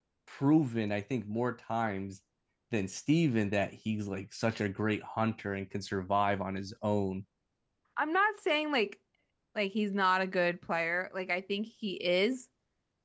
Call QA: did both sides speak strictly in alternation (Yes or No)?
Yes